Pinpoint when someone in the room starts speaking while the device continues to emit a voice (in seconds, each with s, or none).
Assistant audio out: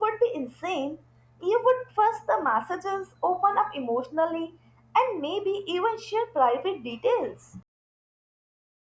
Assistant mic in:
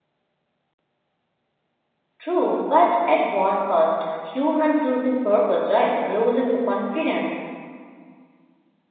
2.2 s